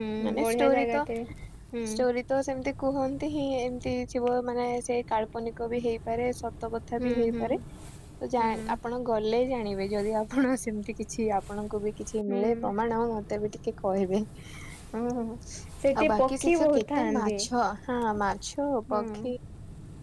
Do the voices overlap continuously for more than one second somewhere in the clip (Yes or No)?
Yes